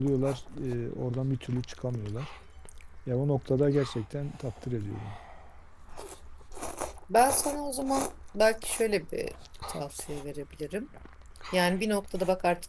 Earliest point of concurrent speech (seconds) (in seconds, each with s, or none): none